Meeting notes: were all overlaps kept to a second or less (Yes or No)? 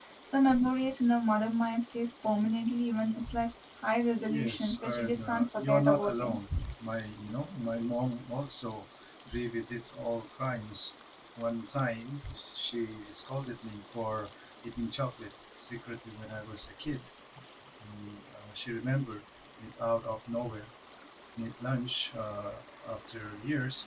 No